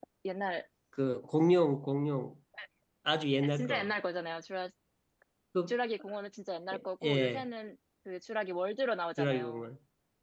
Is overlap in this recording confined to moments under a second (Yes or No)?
Yes